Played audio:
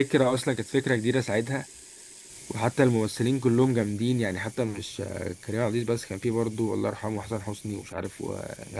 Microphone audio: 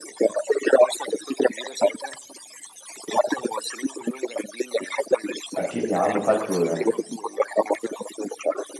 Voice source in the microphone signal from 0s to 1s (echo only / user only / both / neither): echo only